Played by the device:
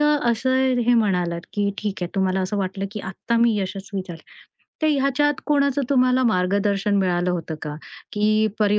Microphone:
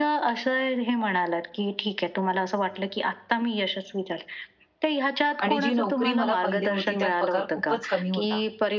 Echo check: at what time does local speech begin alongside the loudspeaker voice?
5.4 s

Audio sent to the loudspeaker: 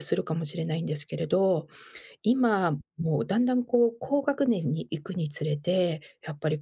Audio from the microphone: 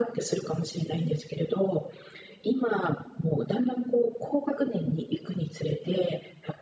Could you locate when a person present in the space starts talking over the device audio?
none

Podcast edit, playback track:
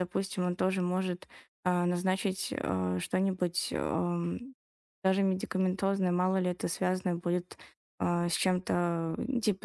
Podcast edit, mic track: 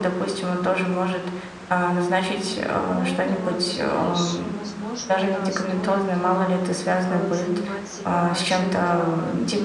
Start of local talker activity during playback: 2.5 s

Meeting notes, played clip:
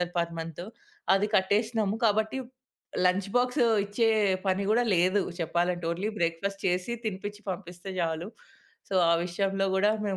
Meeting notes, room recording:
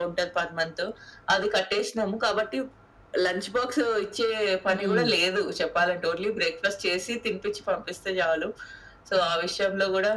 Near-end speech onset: 4.7 s

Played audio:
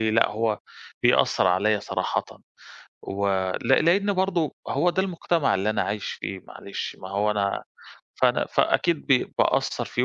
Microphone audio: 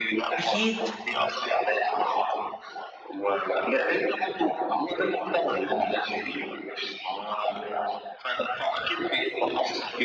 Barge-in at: 0.4 s

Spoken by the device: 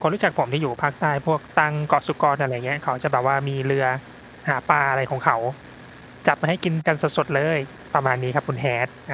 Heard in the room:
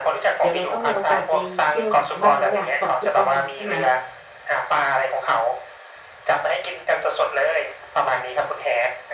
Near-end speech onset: 0.4 s

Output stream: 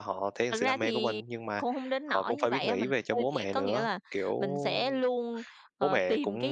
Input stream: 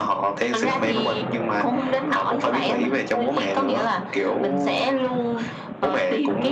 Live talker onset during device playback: none

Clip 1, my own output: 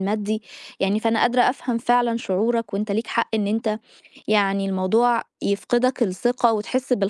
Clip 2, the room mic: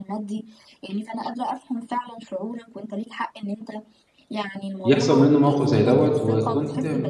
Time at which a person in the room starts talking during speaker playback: 4.8 s

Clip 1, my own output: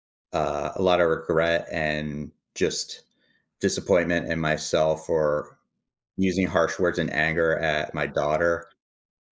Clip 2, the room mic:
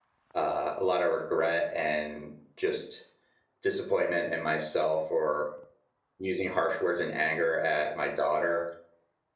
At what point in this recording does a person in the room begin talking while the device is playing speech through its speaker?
none

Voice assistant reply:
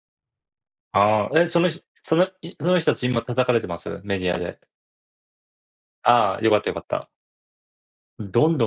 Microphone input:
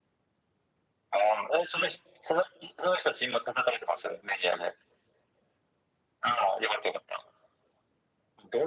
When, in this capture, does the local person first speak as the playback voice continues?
none

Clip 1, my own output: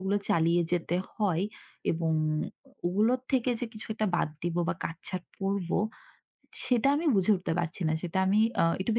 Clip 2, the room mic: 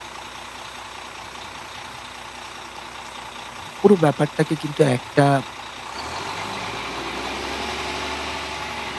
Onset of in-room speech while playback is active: 3.8 s

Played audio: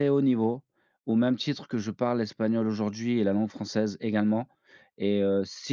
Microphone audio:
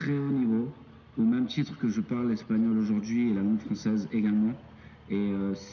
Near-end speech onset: none

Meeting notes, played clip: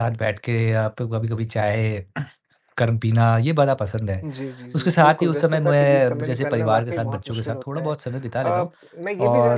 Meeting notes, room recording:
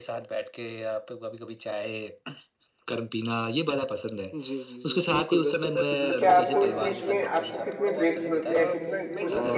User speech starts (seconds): 6.1 s

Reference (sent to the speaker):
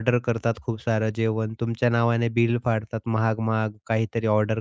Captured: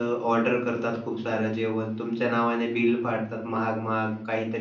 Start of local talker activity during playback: none

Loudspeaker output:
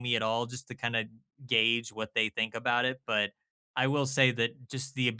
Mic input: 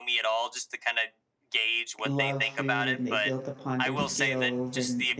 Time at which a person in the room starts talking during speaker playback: 2.0 s

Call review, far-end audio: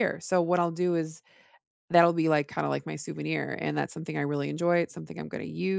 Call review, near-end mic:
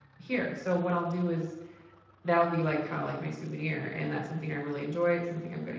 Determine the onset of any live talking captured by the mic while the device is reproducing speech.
none

